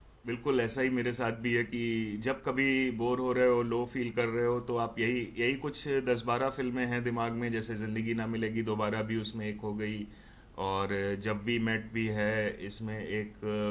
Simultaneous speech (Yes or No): No